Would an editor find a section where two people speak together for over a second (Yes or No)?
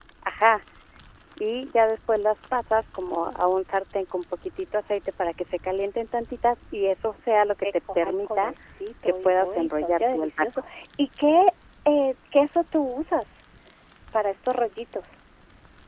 Yes